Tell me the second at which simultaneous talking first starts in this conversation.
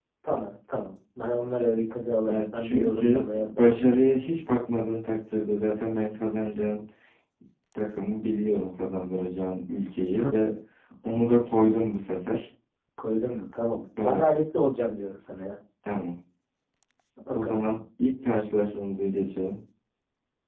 2.3 s

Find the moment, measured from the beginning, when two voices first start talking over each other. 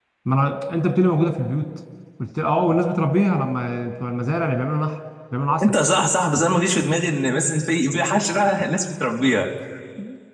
none

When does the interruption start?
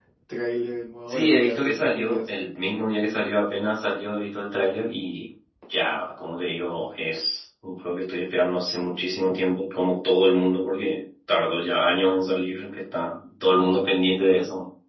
1.1 s

